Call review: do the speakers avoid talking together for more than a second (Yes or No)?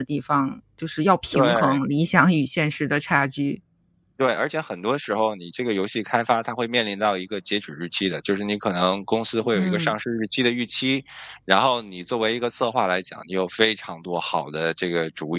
Yes